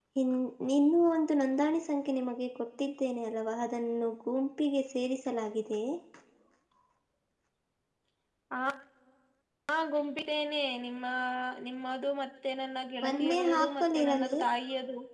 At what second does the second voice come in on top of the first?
13 s

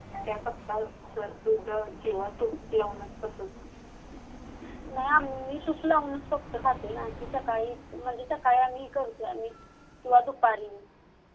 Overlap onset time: none

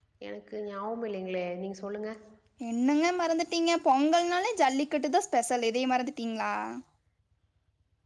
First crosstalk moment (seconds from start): none

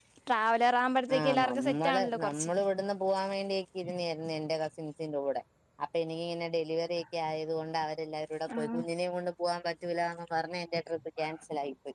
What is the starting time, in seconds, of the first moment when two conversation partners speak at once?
1 s

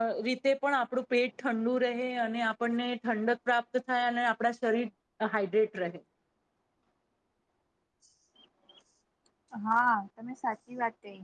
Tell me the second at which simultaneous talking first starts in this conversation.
none

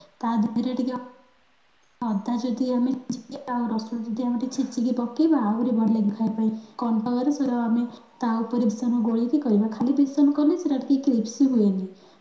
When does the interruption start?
none

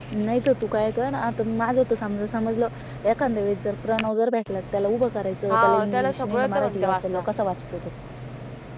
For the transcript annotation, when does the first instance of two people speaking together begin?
5 s

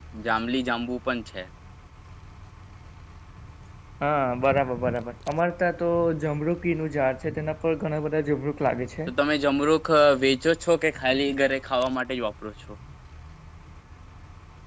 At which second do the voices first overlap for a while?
none

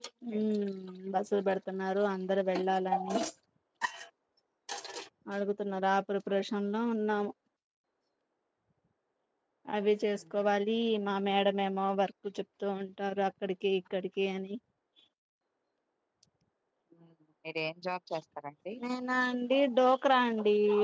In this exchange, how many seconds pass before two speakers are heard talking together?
none

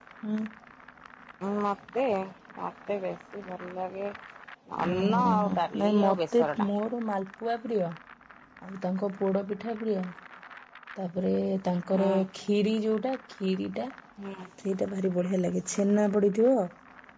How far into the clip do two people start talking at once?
5 s

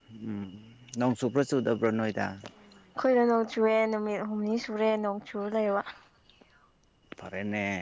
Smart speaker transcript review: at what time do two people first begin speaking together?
none

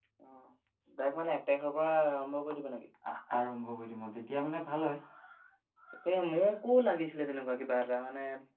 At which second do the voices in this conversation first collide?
none

